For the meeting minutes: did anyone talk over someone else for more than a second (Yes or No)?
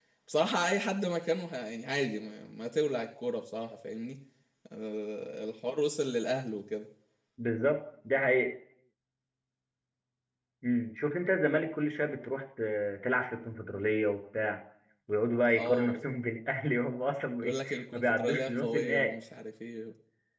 Yes